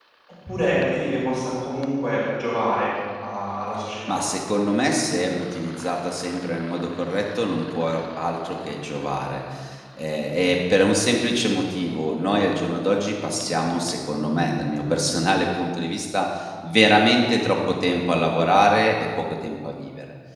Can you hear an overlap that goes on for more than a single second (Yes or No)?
No